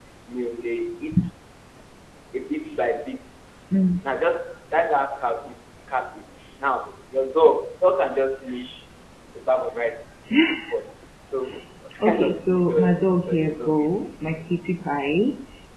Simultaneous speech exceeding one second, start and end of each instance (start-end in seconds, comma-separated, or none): 12.1-13.9